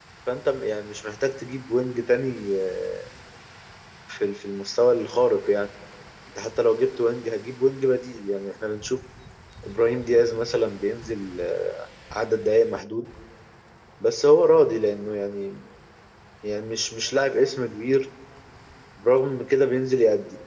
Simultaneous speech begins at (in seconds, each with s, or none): none